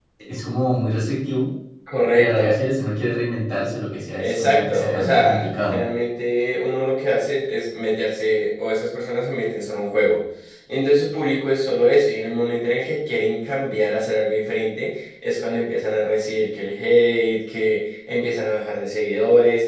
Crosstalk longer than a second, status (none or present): present